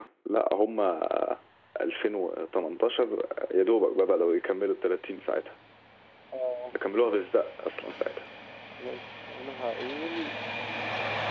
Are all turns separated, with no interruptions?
Yes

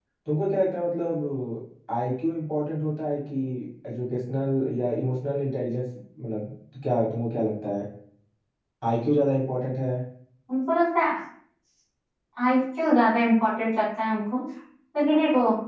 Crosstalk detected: No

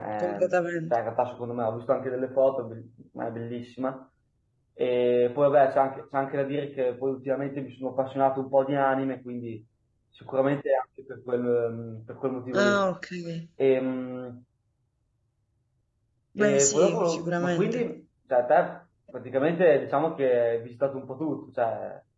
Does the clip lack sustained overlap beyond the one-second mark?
No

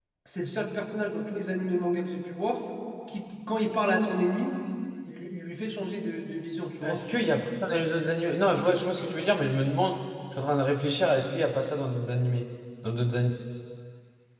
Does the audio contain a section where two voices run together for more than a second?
No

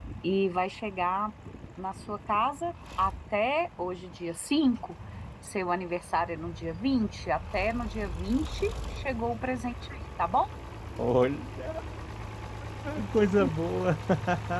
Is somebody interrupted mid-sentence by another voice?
No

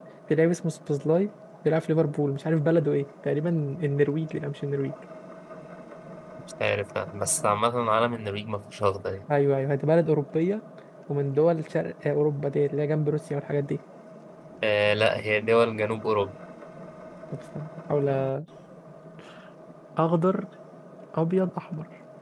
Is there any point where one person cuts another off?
No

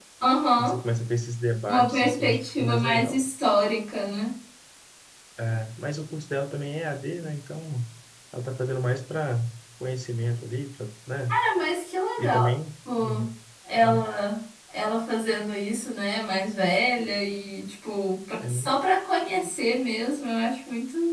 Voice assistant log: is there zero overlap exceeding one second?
No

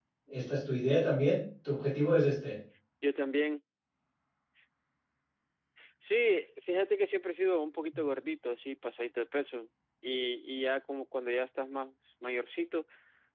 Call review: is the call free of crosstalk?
Yes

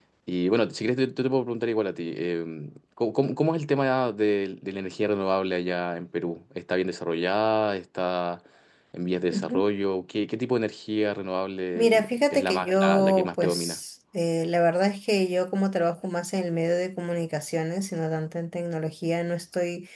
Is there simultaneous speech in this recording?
Yes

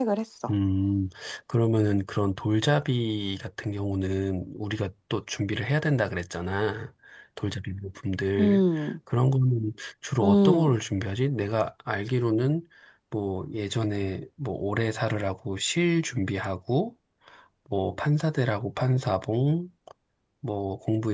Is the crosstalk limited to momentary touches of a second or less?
Yes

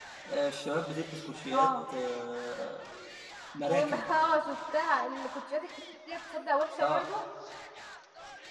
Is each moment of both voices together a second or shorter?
Yes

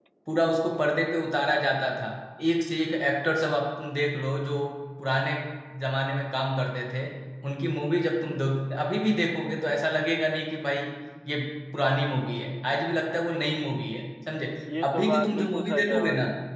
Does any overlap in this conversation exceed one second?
Yes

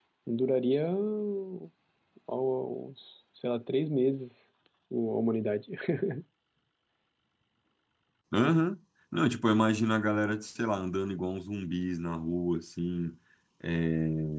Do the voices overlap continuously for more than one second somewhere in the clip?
No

